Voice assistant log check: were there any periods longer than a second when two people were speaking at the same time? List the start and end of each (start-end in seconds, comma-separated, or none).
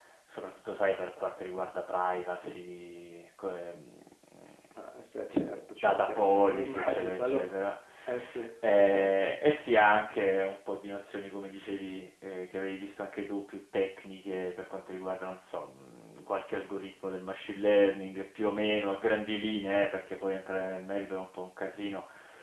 5.8-7.4